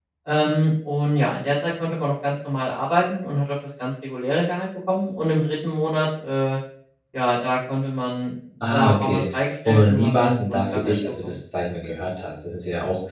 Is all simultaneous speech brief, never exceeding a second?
No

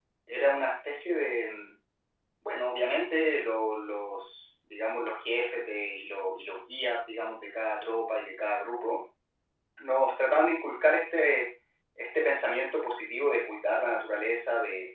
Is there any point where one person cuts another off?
No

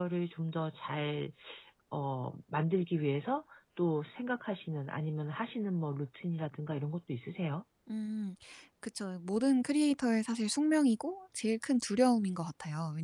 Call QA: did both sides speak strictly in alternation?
Yes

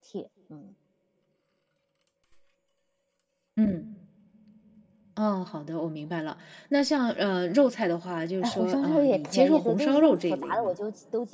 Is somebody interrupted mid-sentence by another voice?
Yes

